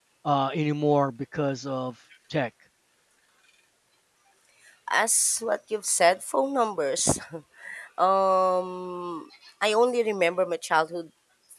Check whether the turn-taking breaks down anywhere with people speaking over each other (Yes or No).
No